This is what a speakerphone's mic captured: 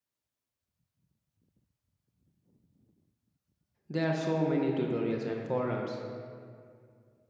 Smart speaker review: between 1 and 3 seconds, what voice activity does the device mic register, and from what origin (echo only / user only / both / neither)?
neither